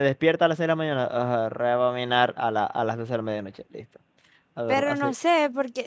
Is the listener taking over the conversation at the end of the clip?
Yes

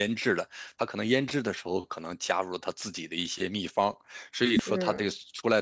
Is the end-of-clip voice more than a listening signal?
No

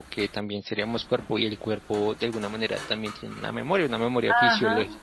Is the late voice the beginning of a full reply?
Yes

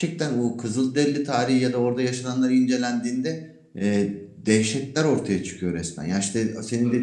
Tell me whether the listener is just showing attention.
Yes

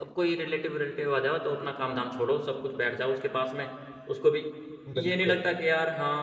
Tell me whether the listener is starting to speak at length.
No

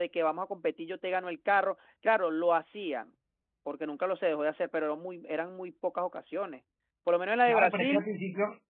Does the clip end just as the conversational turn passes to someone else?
Yes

